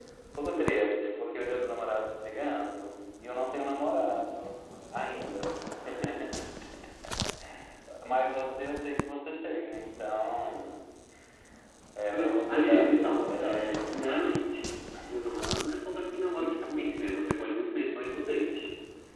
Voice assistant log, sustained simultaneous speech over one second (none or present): present